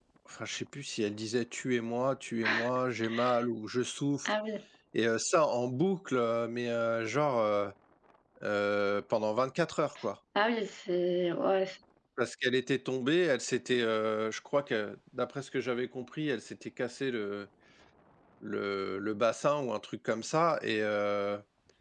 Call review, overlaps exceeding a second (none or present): none